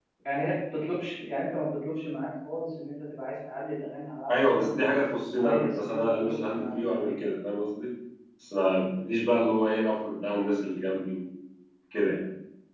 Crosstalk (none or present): present